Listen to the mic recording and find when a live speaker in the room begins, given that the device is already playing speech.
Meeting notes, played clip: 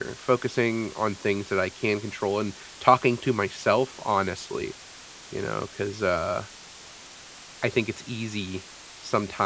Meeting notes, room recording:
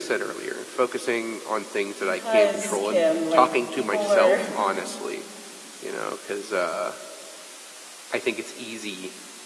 2.0 s

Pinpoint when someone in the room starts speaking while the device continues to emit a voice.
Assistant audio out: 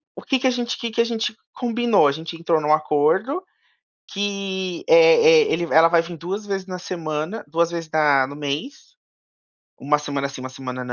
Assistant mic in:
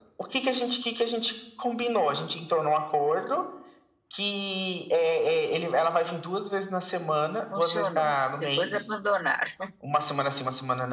7.5 s

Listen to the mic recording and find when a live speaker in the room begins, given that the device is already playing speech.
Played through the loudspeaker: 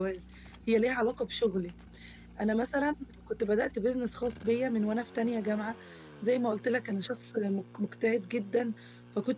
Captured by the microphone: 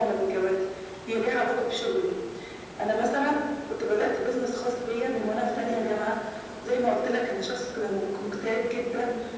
none

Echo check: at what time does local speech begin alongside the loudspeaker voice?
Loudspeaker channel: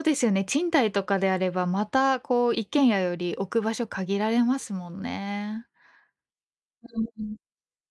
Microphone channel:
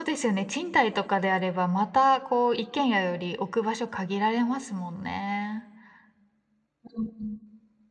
none

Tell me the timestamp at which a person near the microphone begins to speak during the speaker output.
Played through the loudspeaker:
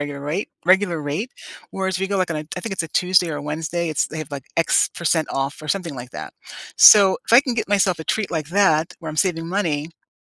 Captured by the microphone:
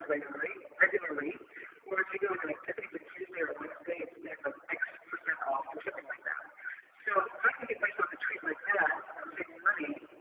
none

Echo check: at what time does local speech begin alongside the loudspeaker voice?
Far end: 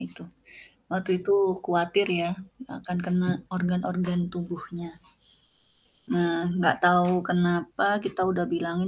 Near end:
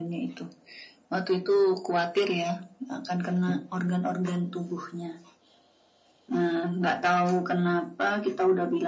none

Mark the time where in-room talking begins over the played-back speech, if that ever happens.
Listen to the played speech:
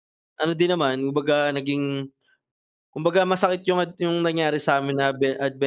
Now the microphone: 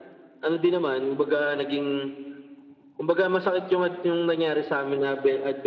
none

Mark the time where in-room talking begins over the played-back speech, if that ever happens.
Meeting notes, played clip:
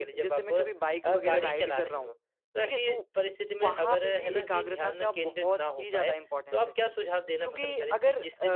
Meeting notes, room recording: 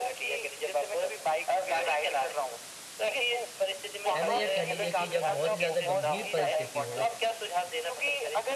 4.2 s

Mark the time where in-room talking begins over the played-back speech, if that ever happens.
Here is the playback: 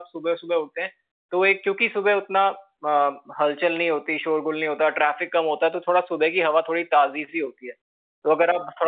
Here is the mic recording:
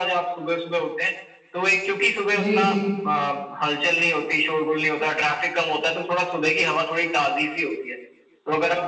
2.4 s

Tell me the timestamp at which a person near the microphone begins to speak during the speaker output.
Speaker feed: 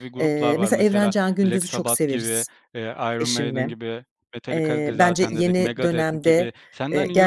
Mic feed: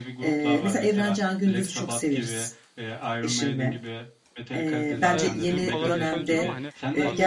5.1 s

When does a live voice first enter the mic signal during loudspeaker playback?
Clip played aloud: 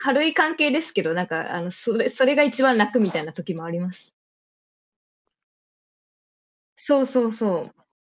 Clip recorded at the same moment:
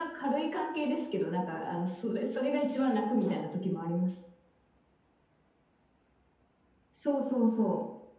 none

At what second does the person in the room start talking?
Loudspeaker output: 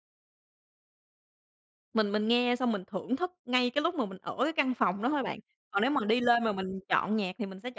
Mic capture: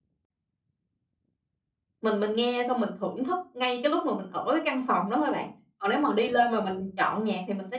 none

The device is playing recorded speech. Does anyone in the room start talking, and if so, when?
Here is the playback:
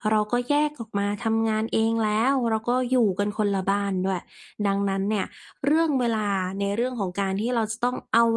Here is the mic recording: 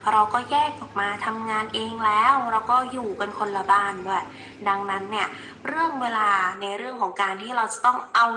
none

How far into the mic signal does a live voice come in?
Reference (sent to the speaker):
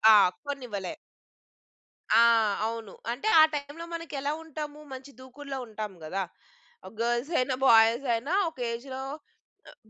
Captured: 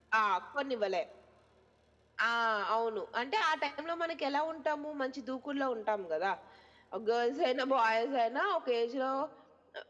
none

